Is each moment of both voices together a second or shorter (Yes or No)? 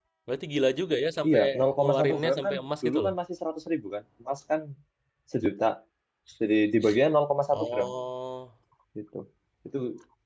No